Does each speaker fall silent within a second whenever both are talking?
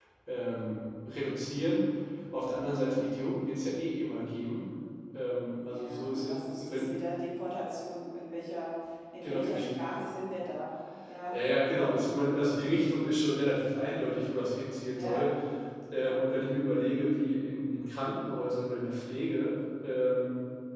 No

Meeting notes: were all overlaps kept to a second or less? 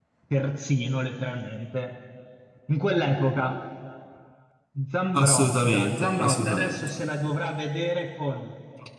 No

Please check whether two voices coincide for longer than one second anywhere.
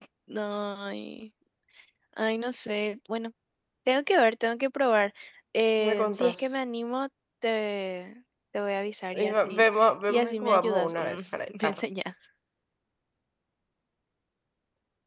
Yes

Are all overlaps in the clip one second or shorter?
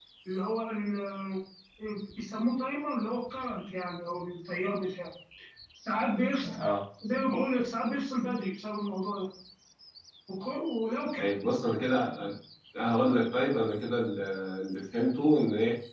Yes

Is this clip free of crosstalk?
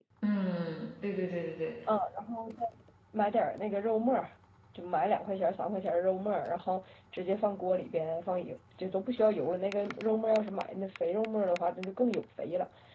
Yes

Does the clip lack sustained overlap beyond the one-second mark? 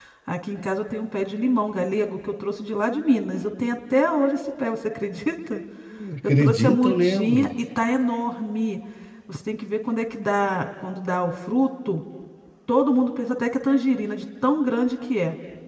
No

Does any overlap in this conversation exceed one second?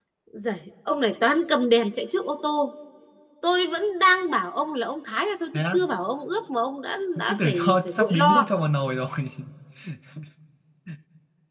Yes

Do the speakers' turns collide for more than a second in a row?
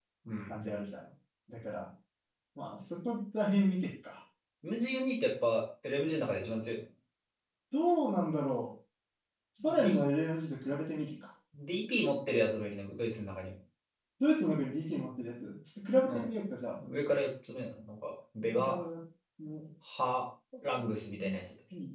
No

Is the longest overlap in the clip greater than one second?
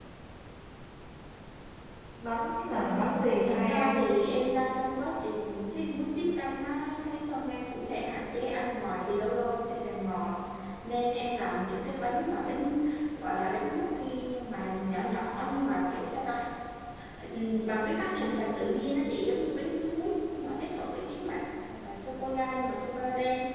Yes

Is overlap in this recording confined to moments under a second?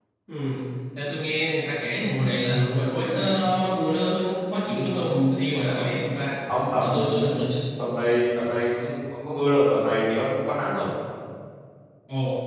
Yes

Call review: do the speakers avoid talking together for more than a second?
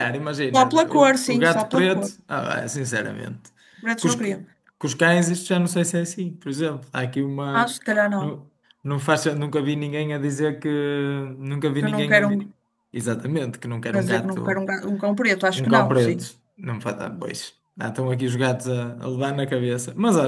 No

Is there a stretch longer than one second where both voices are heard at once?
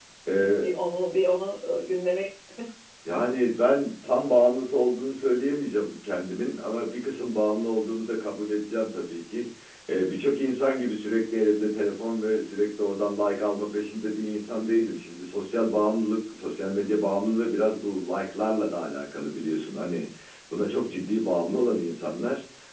No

